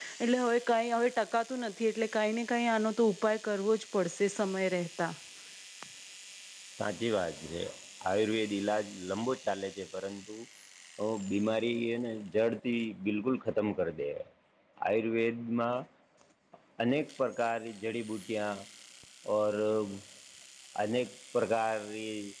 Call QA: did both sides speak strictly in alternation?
Yes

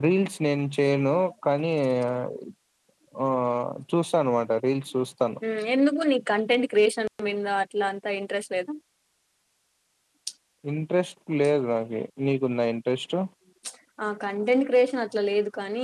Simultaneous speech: No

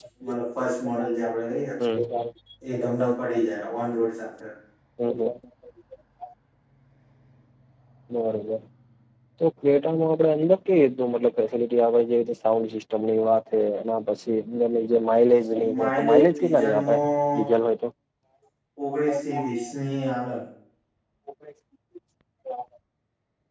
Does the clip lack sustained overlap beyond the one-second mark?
No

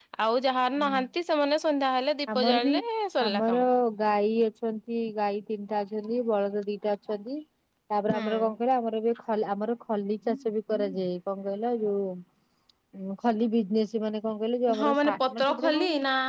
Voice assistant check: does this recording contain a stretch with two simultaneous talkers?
Yes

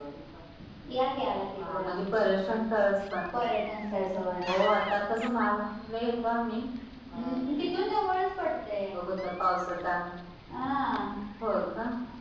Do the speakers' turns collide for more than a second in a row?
No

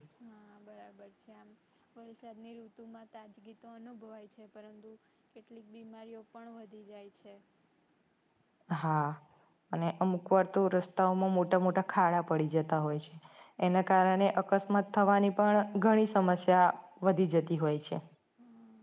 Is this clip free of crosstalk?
Yes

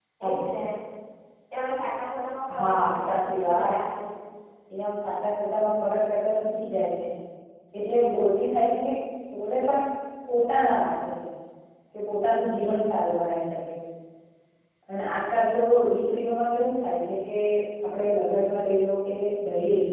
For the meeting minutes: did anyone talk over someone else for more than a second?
Yes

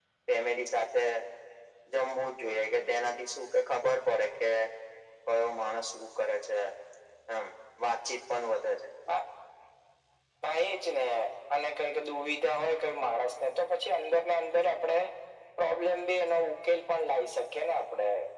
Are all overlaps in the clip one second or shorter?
Yes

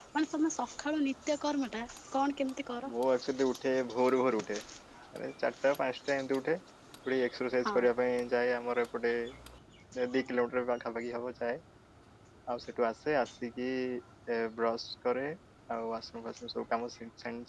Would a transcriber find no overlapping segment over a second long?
Yes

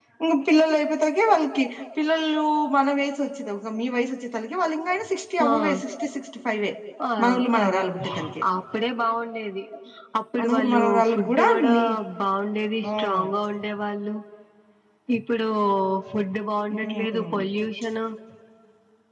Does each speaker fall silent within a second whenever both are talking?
No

